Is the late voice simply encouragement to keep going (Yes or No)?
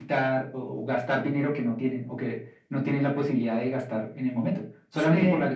Yes